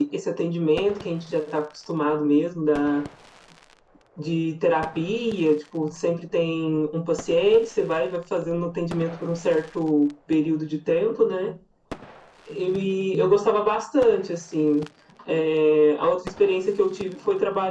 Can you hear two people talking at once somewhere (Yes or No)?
No